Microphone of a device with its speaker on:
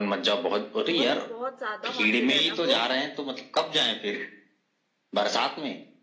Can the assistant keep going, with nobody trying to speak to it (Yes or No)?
No